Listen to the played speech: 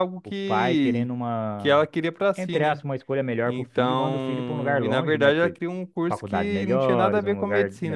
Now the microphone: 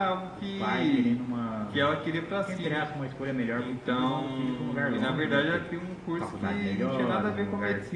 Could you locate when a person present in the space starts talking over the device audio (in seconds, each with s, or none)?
none